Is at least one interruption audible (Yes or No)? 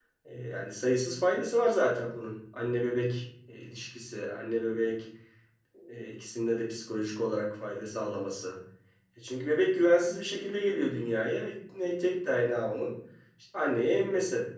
No